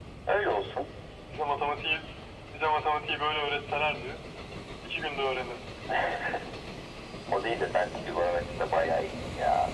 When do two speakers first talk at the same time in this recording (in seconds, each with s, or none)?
none